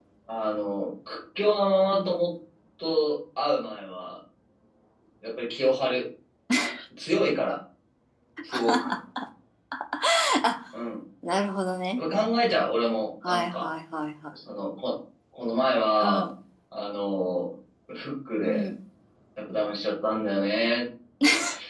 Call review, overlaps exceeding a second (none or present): none